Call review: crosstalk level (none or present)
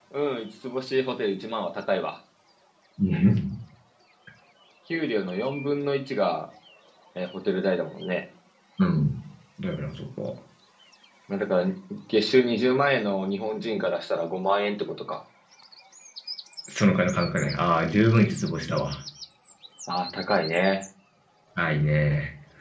none